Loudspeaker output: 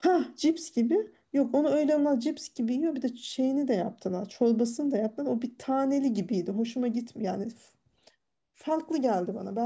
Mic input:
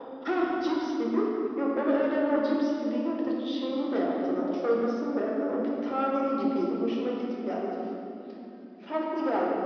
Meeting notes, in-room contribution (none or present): none